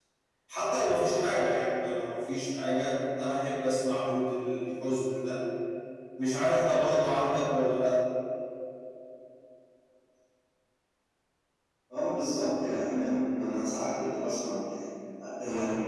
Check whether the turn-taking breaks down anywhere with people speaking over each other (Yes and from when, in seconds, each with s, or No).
No